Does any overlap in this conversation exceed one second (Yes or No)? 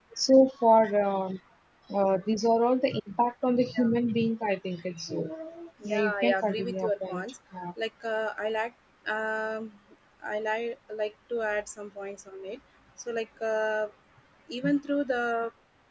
Yes